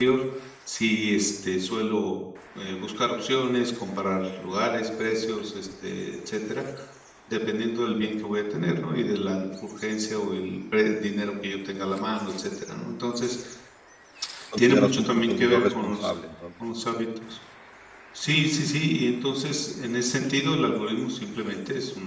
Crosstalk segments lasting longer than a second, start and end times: 14.6-16.1

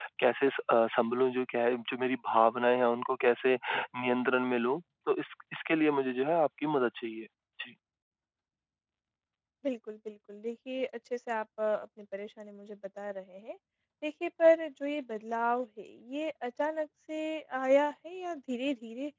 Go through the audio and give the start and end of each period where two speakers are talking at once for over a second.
none

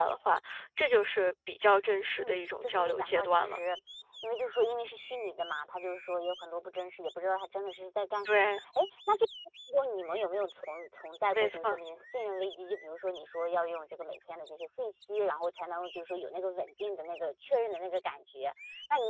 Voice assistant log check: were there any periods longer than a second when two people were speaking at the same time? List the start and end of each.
2.2-3.6

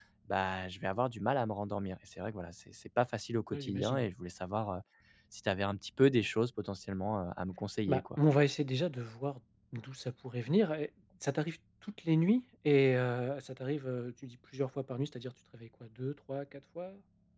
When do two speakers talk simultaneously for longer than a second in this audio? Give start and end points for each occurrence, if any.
none

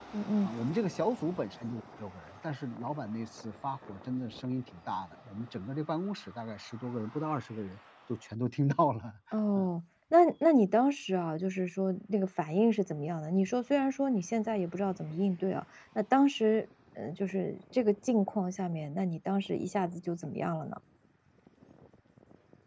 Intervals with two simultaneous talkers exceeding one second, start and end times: none

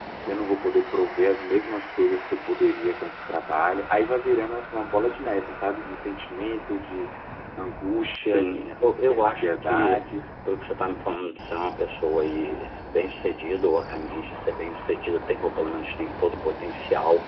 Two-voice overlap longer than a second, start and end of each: 8.2-10.0

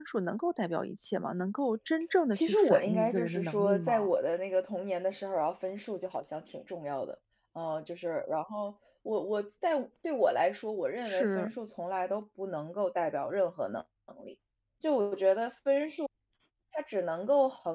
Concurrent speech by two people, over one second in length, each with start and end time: 2.3-4.1

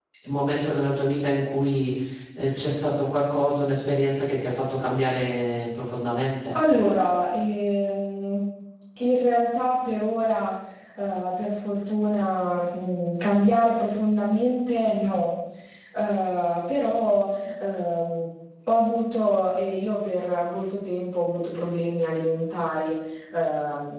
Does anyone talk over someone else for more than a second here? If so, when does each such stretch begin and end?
none

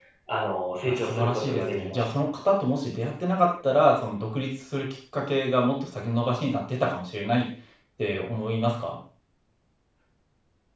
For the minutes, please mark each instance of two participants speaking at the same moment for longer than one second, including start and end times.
0.8-2.2

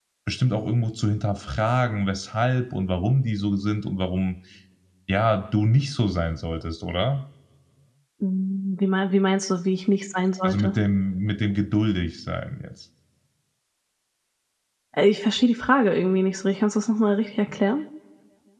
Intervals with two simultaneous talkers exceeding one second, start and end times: none

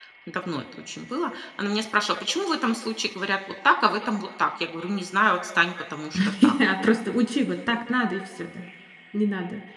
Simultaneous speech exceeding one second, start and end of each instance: none

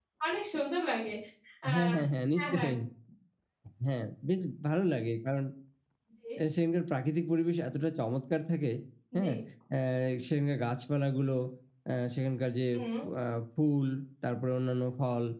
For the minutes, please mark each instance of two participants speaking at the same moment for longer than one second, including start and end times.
none

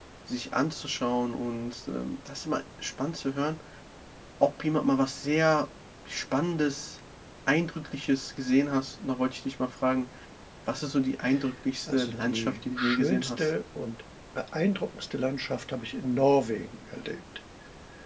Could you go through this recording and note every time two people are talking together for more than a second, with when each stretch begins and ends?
11.9-13.5

